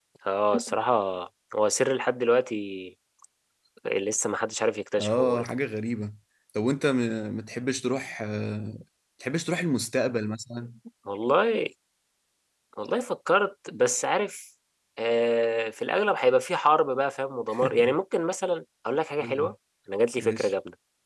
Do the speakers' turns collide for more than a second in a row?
No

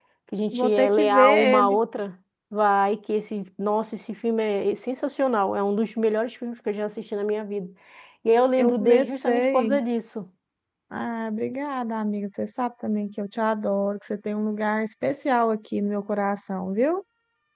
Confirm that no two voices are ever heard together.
No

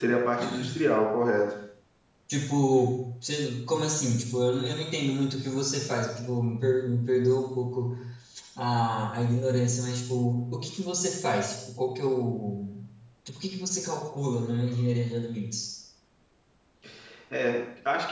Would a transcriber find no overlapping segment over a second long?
Yes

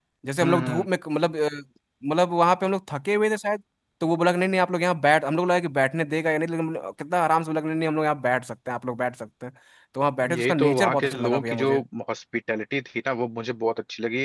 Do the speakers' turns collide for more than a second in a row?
Yes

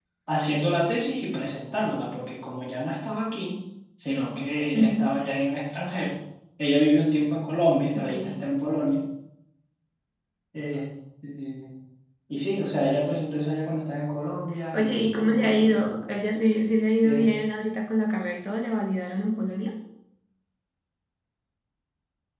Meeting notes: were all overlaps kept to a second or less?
No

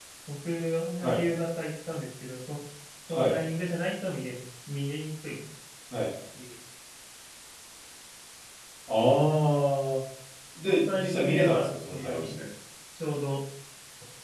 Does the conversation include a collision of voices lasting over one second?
Yes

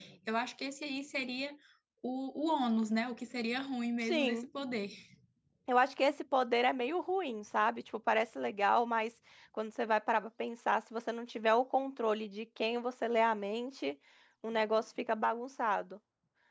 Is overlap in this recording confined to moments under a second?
Yes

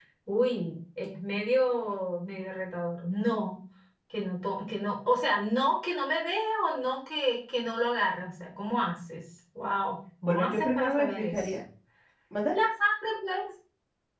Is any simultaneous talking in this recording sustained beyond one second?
Yes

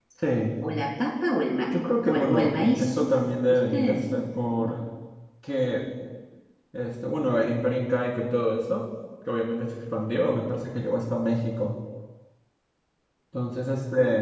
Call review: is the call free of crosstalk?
No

